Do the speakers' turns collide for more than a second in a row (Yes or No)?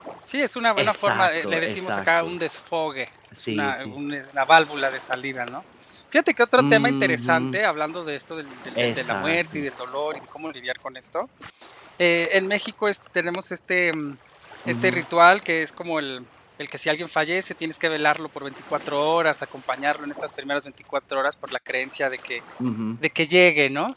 Yes